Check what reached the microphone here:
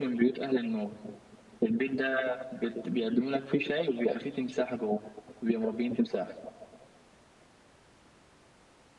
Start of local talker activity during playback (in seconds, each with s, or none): none